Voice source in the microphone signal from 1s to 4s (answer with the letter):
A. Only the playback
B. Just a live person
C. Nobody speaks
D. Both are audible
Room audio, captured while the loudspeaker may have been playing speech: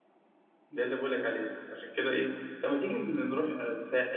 A